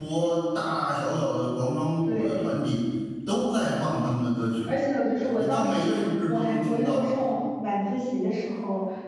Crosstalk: present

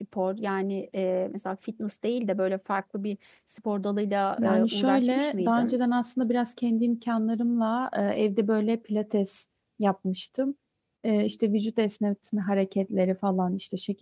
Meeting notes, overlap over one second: present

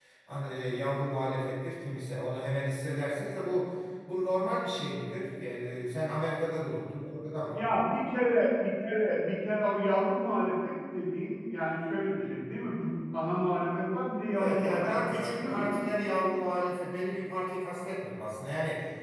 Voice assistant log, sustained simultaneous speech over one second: present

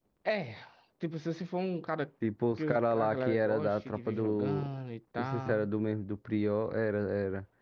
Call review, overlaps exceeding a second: present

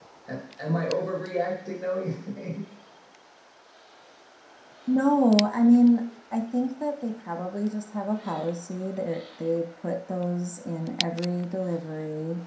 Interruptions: none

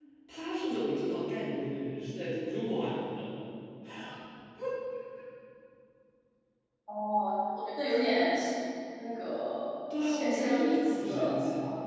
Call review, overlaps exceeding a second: present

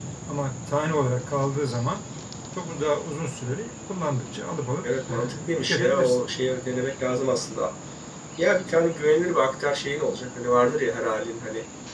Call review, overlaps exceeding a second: present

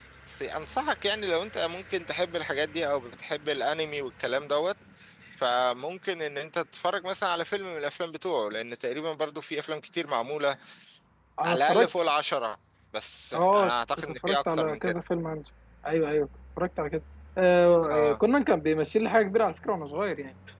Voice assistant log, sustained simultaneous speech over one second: present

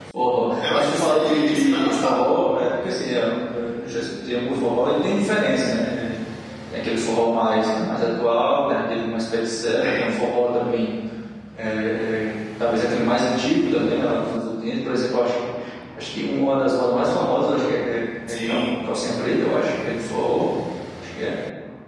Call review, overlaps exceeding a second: present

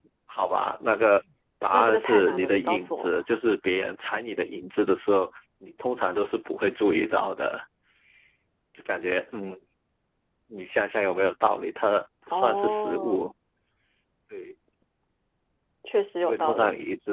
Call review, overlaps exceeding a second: present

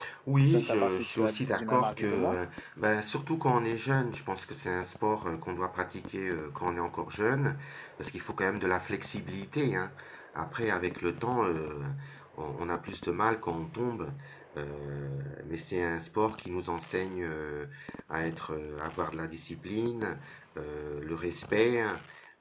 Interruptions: present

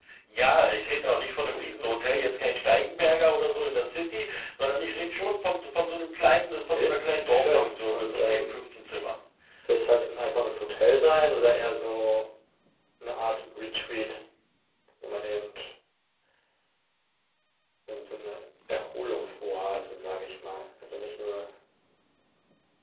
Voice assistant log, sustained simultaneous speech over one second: present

